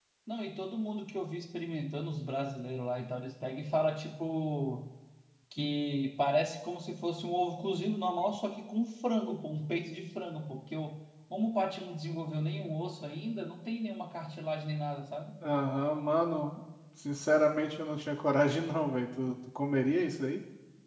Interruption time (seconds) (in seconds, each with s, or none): none